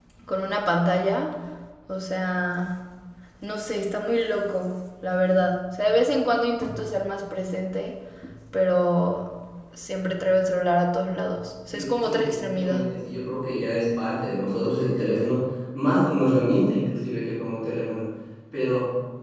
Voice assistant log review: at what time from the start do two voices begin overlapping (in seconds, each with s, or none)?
11.7 s